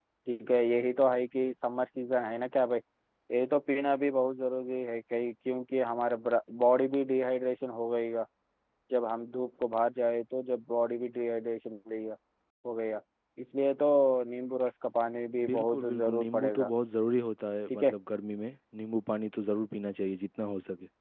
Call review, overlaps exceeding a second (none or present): present